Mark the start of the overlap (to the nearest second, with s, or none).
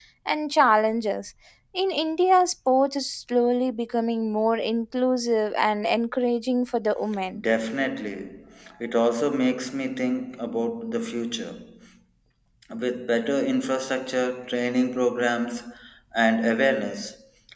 none